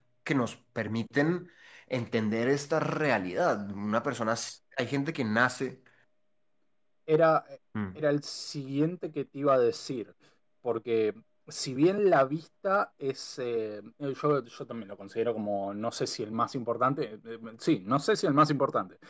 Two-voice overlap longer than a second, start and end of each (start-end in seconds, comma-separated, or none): none